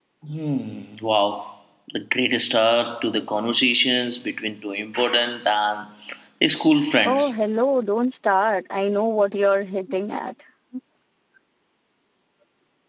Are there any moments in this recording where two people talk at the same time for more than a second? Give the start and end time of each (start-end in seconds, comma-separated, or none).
none